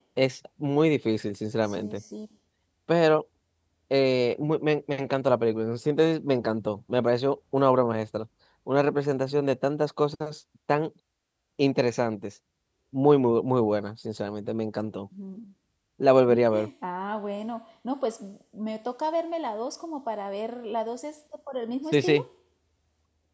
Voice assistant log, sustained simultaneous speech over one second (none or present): none